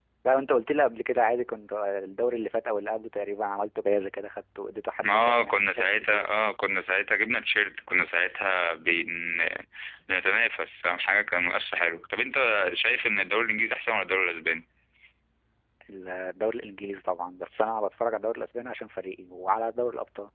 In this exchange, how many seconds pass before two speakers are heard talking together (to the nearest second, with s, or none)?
5 s